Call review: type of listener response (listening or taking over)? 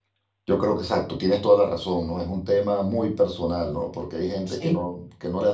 listening